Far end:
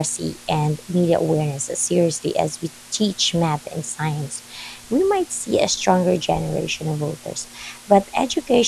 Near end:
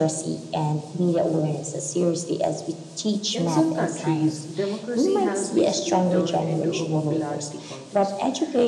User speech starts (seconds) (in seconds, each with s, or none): 3.3 s